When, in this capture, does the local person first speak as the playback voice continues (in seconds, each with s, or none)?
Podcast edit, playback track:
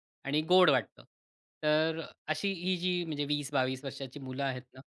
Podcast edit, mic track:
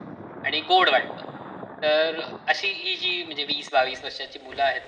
none